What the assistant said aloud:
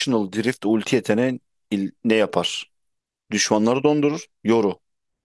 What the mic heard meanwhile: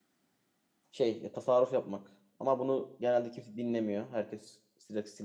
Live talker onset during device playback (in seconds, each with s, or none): 0.9 s